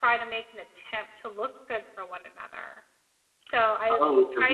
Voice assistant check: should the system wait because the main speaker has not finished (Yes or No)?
No